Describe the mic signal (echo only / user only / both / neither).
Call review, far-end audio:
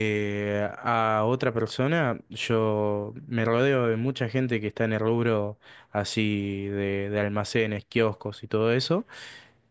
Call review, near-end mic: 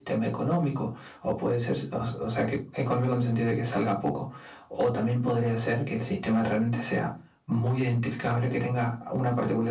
user only